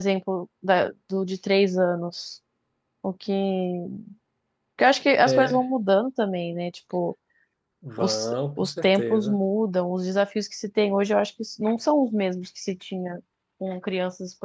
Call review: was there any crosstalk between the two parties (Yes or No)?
Yes